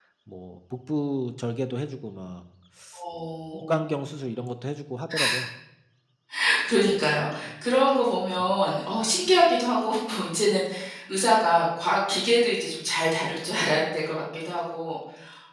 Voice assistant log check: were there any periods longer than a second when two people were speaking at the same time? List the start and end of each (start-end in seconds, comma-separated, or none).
none